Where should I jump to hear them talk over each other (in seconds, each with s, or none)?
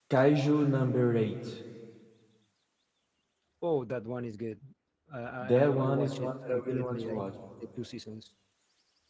5.4 s